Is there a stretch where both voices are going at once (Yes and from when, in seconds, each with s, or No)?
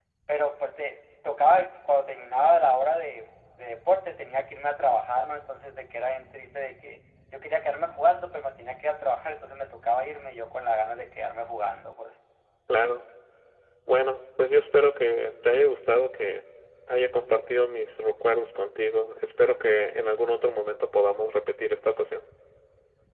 No